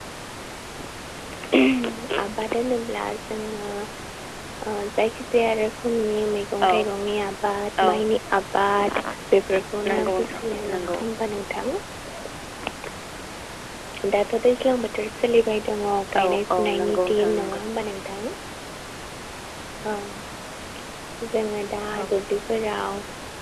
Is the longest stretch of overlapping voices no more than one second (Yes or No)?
No